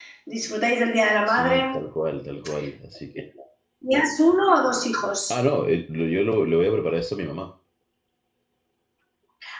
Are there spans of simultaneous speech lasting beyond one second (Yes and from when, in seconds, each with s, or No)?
No